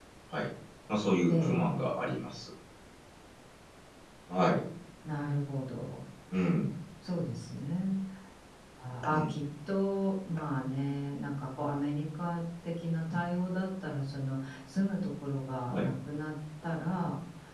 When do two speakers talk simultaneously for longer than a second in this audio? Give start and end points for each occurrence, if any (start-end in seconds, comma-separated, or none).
none